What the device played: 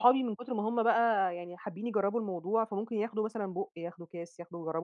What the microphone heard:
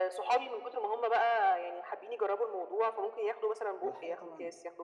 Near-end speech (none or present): present